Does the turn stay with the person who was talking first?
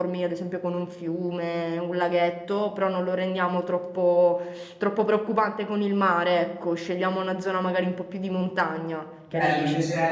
No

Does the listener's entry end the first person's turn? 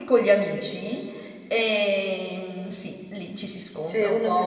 Yes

